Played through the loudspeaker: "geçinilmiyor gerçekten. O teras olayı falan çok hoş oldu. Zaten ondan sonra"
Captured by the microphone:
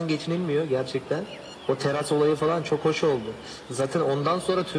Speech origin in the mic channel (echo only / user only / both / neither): echo only